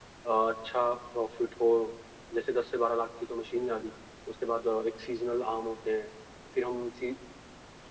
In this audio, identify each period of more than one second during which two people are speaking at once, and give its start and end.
none

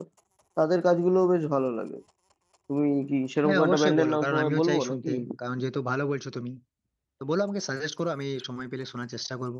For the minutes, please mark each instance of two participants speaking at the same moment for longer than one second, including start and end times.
3.4-5.1

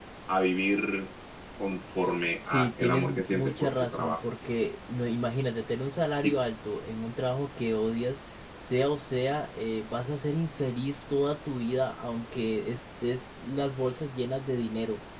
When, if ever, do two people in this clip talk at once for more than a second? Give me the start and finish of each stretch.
2.5-4.2

